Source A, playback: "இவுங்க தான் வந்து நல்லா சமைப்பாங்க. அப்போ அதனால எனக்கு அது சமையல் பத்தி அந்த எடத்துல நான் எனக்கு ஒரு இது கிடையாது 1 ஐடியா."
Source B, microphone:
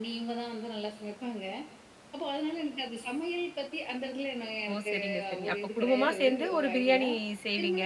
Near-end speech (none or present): present